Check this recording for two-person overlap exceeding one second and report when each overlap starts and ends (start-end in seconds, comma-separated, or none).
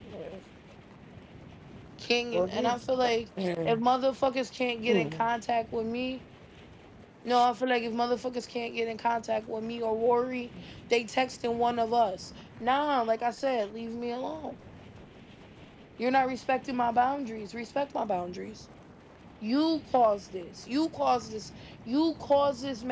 none